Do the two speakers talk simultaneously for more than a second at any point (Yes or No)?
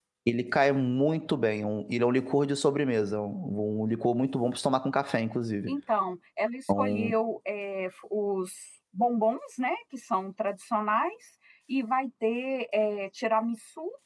No